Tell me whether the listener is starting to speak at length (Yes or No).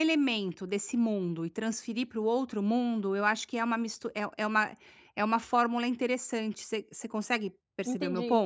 Yes